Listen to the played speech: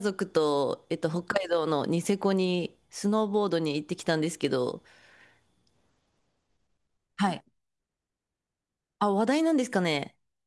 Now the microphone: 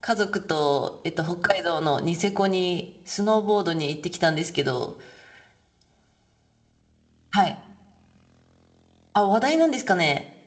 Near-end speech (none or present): none